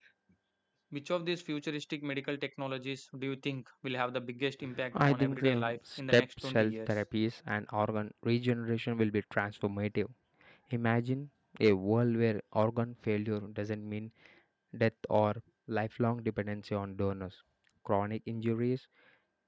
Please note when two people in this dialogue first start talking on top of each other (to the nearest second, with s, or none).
5 s